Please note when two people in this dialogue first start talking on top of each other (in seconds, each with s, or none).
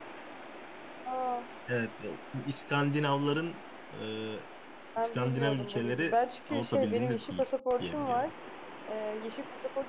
5.0 s